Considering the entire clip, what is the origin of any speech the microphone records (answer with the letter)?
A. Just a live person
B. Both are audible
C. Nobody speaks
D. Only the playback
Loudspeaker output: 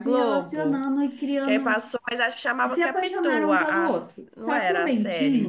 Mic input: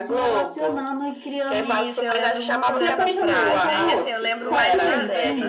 B